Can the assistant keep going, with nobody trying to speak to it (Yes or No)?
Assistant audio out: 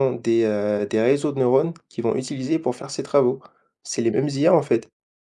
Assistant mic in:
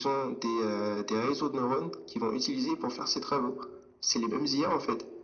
Yes